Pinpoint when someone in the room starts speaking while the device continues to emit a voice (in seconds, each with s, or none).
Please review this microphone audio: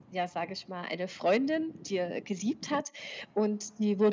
none